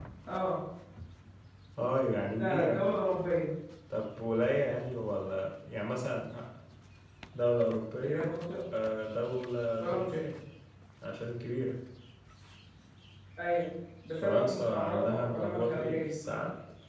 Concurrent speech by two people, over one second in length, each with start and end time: 14.2-16.0

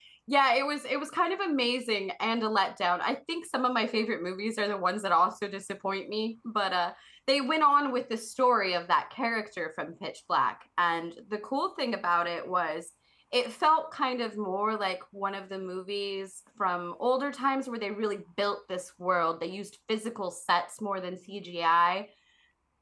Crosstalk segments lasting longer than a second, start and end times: none

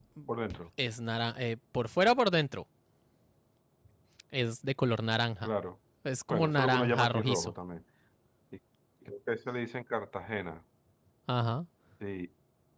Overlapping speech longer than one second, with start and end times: 6.3-7.5

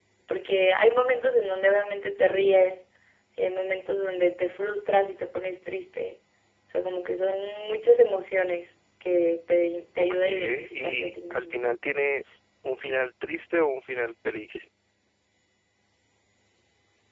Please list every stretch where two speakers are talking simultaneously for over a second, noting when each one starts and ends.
10.0-11.6

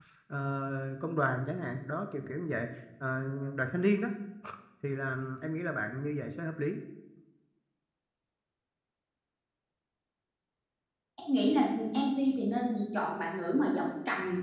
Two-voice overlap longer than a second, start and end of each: none

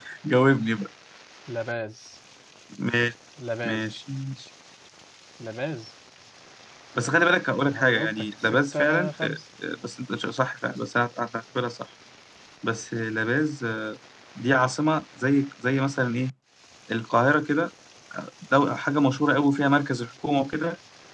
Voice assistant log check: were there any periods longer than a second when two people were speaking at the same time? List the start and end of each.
7.7-9.2

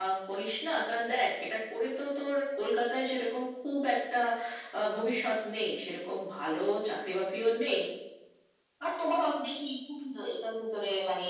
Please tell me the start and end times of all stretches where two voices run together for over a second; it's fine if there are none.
none

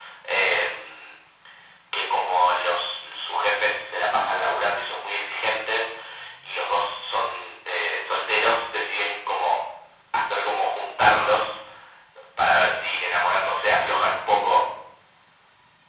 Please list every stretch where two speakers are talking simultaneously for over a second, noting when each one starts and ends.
none

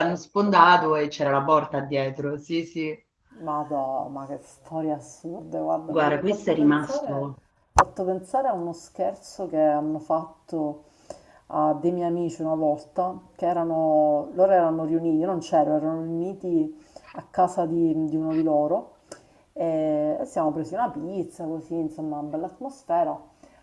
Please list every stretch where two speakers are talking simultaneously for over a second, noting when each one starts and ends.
5.9-7.2

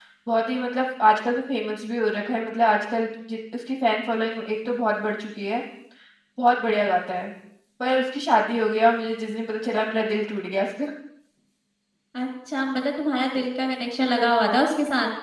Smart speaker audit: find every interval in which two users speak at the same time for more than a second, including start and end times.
none

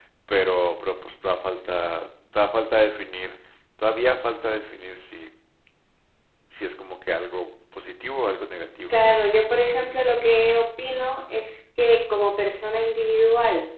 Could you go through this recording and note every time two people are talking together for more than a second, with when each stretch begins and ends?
none

